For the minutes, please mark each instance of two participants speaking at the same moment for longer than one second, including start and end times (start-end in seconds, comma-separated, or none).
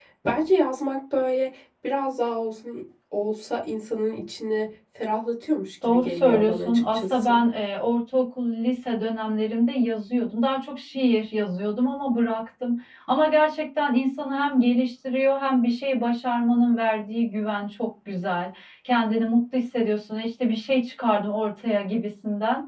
5.9-7.4